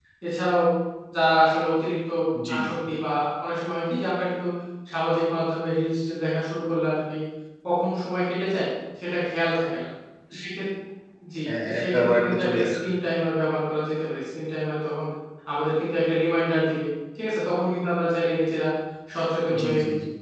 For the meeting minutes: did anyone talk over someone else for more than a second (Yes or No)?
Yes